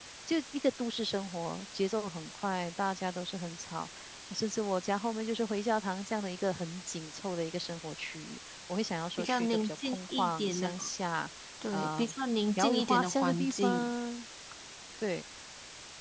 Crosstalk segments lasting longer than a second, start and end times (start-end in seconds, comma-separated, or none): 9.2-10.7, 12.6-13.9